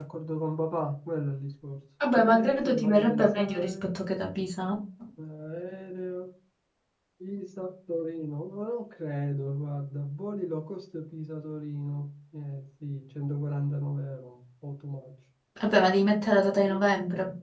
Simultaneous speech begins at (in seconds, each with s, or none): 2.0 s